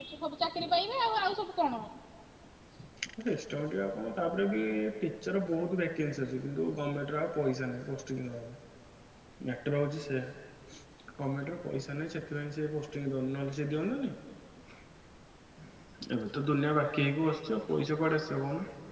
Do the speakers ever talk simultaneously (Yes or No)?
No